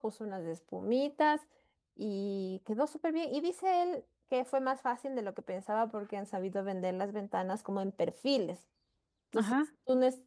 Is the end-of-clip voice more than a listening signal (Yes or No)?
No